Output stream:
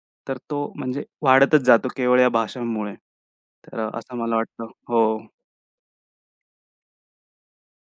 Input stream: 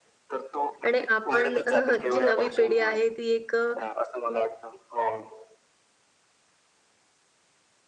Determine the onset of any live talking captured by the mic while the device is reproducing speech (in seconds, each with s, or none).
0.9 s